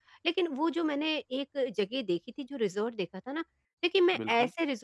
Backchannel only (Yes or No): Yes